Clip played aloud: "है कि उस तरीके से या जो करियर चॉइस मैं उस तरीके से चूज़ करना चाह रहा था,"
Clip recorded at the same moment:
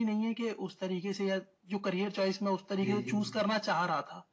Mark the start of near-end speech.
3 s

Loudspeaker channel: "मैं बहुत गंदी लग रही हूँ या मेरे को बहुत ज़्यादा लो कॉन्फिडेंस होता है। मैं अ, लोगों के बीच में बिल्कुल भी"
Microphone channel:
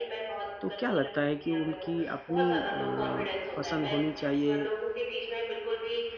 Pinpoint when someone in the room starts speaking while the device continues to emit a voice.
1 s

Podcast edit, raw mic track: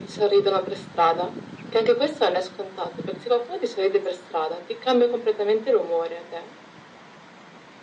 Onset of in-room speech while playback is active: none

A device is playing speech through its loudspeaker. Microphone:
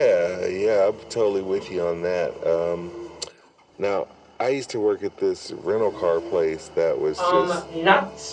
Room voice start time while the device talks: 7 s

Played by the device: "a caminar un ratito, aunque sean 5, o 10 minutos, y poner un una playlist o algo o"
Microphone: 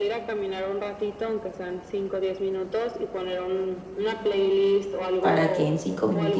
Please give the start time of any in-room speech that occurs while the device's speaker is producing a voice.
5 s

